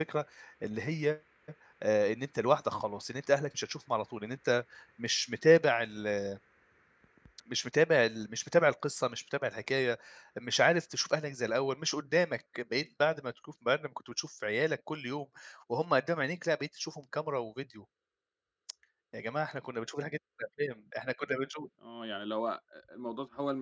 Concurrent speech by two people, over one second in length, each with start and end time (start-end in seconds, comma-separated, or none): none